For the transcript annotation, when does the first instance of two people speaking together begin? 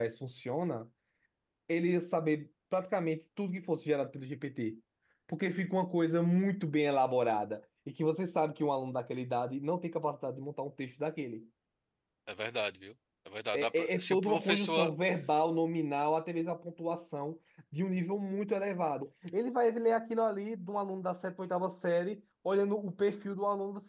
13.5 s

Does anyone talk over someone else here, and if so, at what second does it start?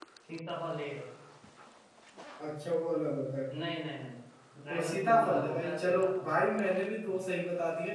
4.7 s

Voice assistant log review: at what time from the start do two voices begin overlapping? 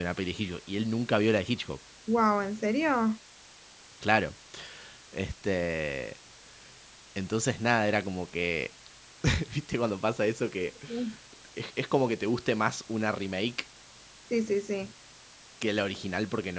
none

